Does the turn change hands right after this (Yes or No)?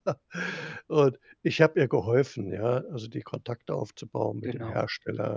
No